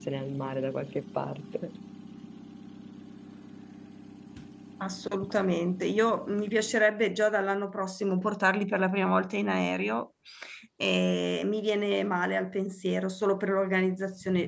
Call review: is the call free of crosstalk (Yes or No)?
Yes